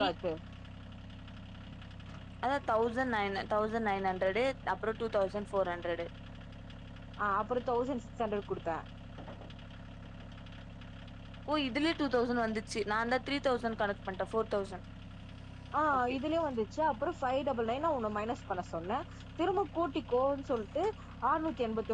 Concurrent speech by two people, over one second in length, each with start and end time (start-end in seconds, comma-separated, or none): none